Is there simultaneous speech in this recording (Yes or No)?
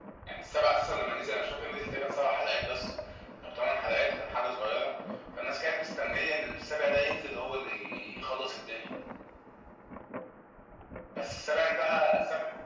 No